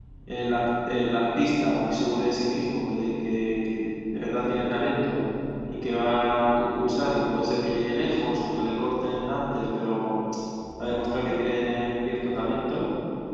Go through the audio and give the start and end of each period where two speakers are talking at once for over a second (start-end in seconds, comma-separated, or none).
none